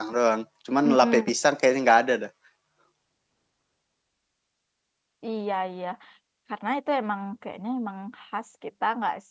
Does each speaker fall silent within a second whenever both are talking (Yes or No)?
Yes